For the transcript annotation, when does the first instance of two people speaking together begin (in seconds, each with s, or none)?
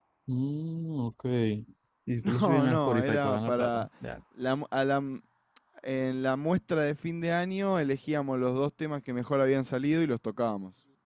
2.2 s